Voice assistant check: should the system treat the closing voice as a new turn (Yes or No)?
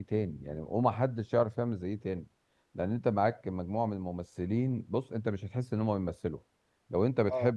No